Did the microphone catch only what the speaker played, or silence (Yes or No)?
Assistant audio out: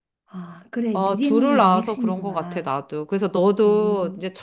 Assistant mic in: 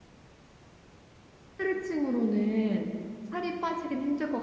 No